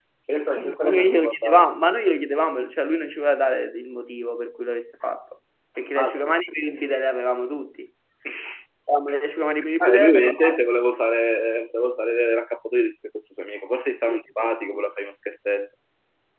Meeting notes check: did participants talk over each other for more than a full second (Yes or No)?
Yes